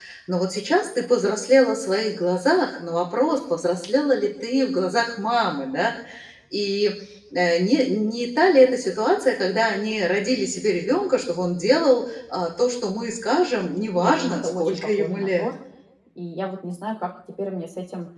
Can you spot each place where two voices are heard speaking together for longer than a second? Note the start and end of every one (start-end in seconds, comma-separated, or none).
13.9-15.5